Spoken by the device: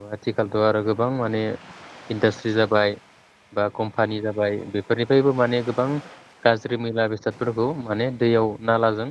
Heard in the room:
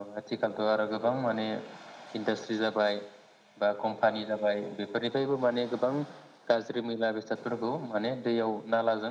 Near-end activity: none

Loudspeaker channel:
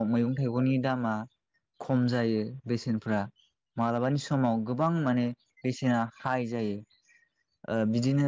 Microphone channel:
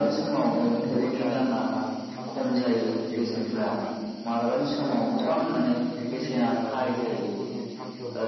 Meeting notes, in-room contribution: present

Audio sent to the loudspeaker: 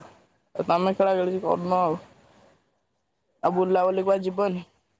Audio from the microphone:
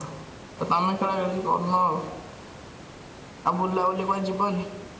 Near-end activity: none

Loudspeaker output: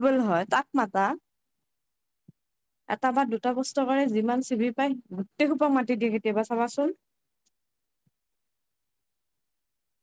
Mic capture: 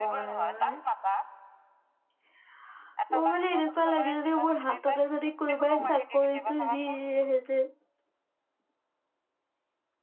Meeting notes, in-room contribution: present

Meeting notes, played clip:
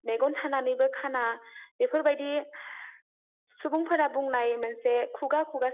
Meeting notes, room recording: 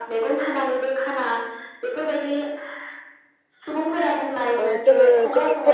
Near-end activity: present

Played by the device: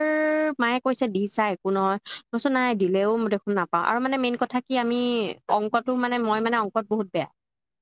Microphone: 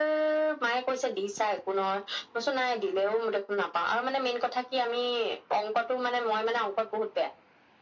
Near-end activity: none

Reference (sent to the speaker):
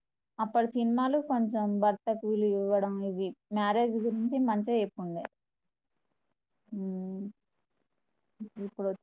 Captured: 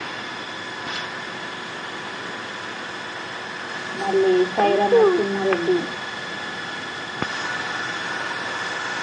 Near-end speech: present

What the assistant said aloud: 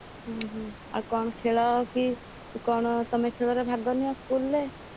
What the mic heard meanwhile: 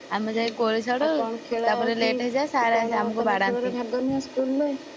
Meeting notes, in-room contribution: present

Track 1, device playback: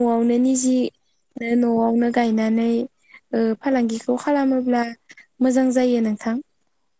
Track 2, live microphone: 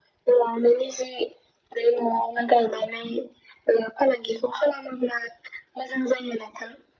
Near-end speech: none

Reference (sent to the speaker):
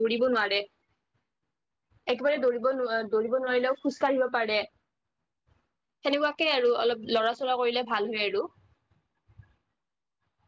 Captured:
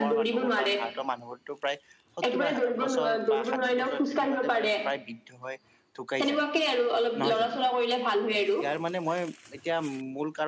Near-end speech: present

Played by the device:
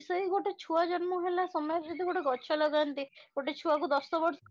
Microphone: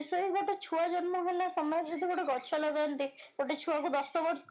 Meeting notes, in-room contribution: none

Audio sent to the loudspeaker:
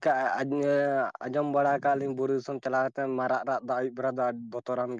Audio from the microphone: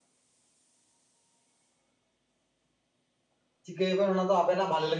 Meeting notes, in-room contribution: present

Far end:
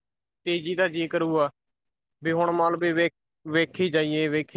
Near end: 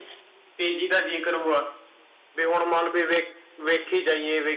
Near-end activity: none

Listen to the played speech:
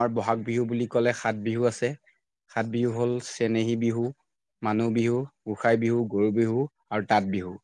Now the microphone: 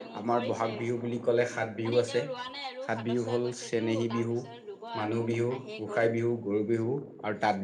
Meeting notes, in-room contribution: present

